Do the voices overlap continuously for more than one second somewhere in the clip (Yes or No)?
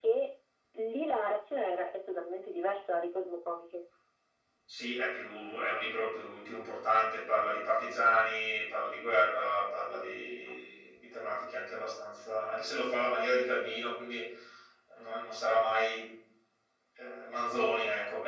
No